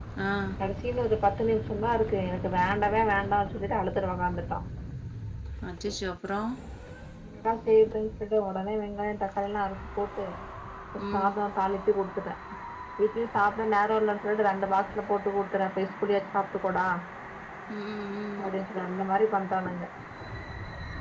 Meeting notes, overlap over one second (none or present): none